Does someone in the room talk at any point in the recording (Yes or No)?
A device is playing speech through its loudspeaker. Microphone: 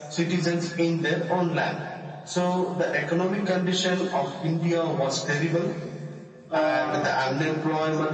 Yes